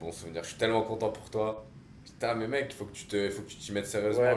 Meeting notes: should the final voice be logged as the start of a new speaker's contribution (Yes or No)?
Yes